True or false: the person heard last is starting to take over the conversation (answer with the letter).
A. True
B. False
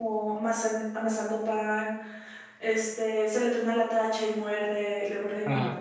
B